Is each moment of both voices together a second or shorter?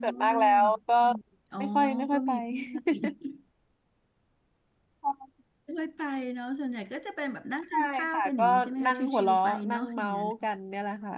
No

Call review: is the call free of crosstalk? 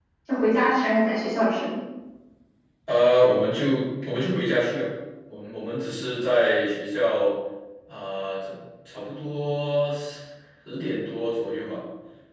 Yes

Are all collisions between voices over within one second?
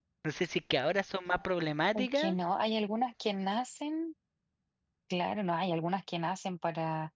Yes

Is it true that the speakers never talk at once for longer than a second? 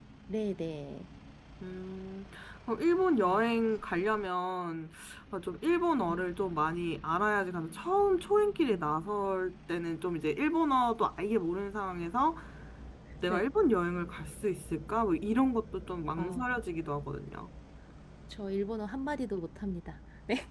Yes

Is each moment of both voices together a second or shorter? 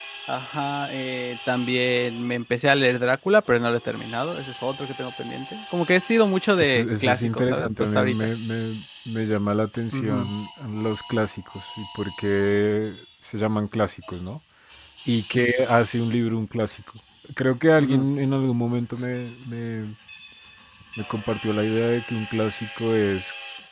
No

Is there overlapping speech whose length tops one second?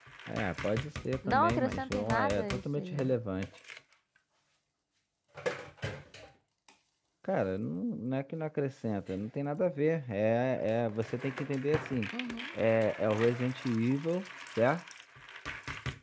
Yes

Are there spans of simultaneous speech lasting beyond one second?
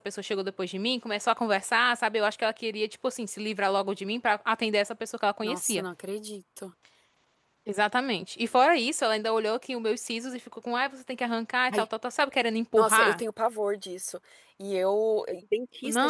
No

